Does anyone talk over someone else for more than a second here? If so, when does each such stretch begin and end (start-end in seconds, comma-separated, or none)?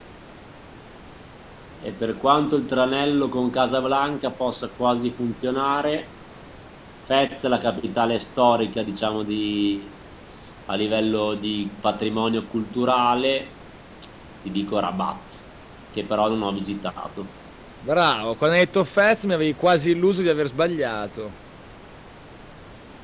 none